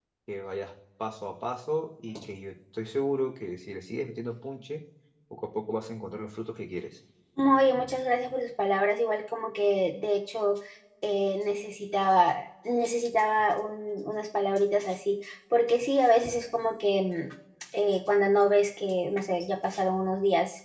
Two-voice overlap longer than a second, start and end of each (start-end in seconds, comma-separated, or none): none